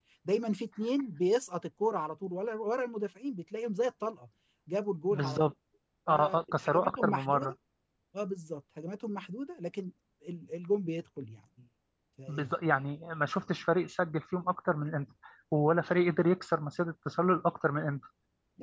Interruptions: present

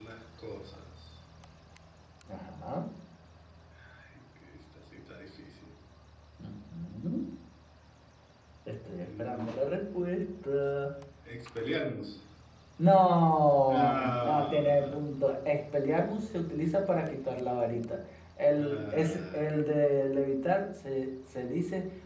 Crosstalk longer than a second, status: present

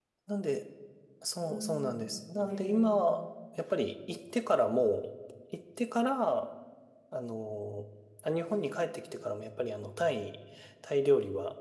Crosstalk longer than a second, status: present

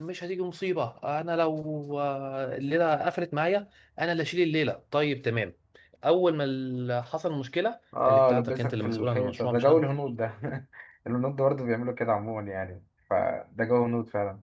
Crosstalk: present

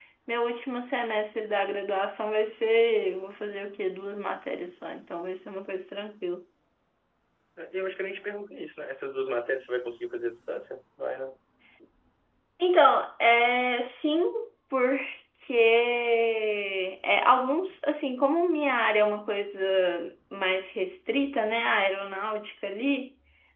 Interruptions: none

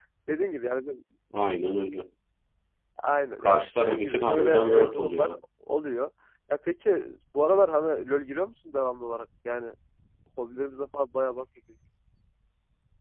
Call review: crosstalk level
present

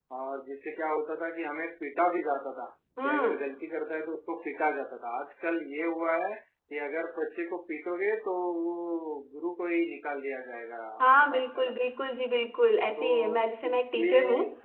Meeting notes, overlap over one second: present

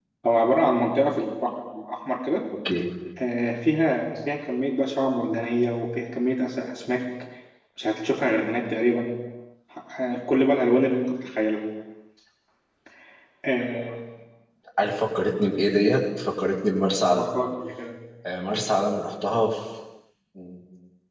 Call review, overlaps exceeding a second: none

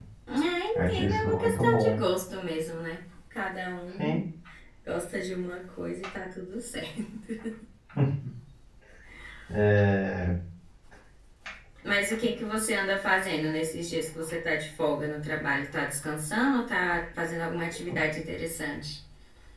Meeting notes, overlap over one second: present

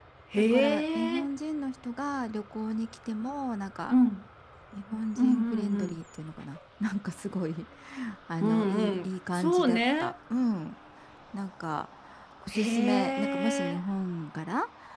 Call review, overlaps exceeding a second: present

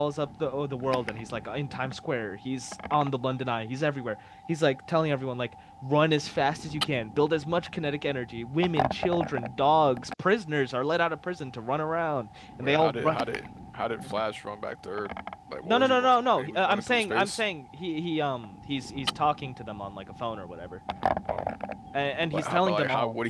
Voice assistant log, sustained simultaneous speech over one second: present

